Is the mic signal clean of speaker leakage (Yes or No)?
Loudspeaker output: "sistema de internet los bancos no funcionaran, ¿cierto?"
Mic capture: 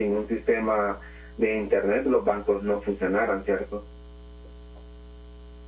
No